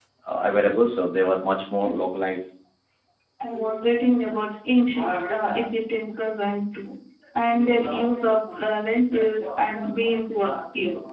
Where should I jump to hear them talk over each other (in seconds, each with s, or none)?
none